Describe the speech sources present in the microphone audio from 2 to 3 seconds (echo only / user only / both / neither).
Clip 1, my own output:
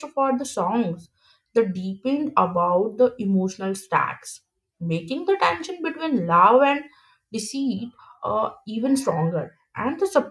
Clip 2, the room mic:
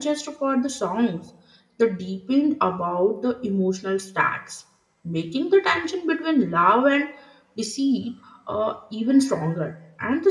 echo only